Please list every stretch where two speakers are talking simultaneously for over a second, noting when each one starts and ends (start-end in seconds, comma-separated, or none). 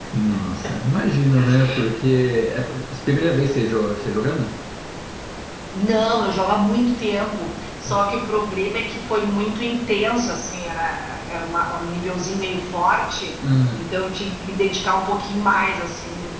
none